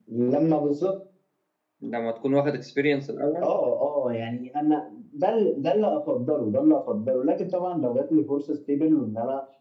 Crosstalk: none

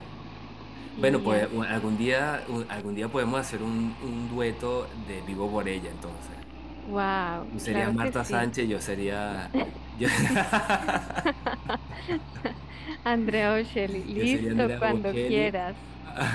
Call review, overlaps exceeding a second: present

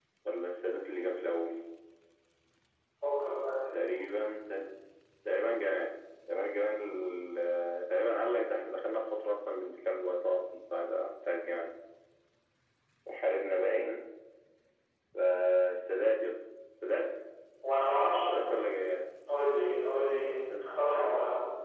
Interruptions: none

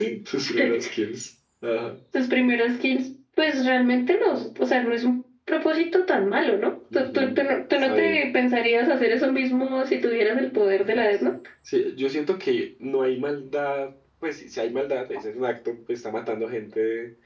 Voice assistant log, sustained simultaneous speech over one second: present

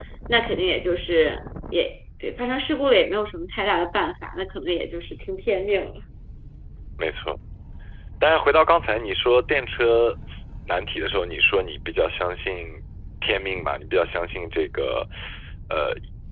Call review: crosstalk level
none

